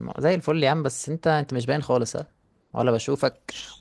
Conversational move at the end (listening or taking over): listening